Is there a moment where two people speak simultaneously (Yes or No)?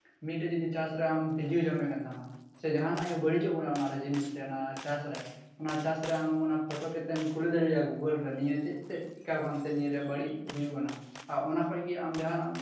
No